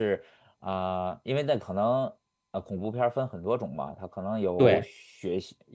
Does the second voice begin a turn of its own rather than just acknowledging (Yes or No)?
No